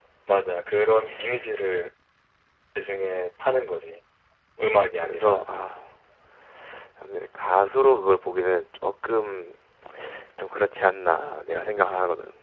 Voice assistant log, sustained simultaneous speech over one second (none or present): none